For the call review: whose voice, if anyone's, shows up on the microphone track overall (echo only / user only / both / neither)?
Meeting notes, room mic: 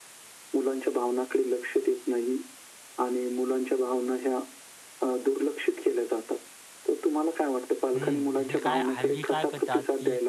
both